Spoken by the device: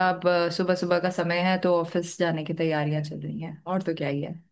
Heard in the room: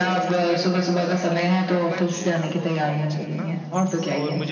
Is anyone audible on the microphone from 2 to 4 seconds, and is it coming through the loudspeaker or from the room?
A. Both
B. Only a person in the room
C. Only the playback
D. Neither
A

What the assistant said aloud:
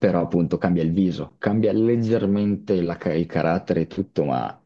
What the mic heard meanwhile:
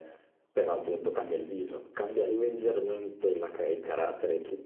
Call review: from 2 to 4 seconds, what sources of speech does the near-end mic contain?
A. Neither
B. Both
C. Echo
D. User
C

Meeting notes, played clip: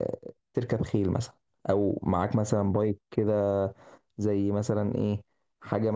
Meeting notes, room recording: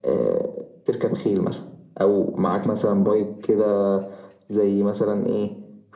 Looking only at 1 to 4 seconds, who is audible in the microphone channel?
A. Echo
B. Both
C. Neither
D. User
A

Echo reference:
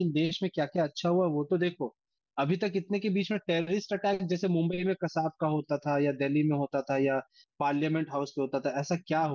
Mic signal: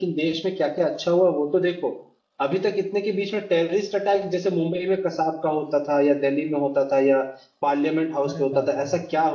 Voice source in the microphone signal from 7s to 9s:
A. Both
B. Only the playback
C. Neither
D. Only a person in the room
A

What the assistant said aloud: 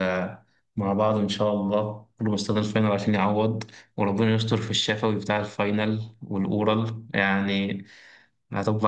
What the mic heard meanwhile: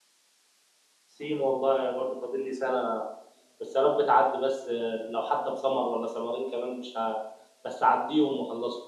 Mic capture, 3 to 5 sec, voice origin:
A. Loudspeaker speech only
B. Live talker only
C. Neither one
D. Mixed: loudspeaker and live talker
B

